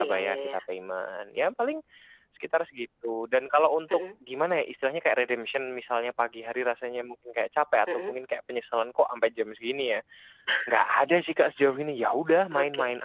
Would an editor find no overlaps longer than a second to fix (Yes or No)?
Yes